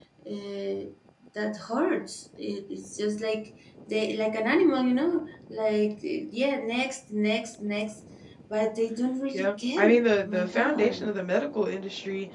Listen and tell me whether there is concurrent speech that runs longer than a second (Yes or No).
Yes